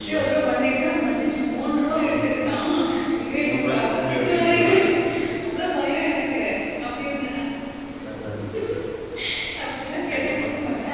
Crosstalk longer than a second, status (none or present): present